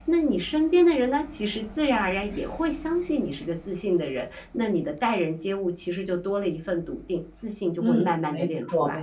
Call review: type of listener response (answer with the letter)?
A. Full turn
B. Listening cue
A